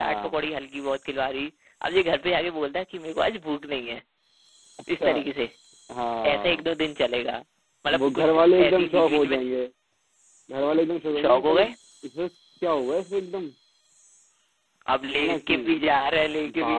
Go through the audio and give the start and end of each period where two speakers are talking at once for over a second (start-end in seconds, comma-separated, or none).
8.0-9.4